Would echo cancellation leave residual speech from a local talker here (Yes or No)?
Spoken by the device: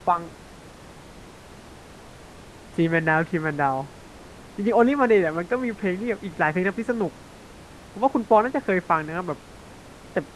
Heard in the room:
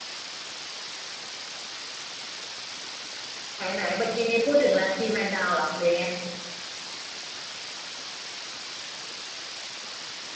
Yes